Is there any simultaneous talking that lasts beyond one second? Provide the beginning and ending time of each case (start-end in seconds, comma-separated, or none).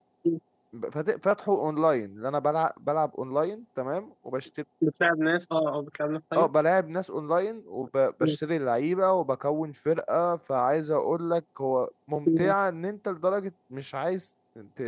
none